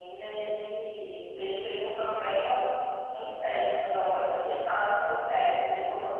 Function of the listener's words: listening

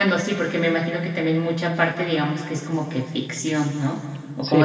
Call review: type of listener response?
listening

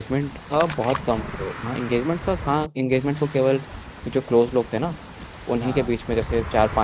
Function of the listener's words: listening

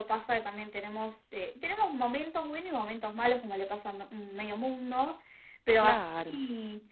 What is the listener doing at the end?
listening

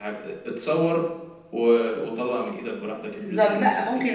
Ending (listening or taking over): taking over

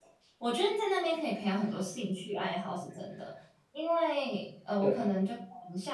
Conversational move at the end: listening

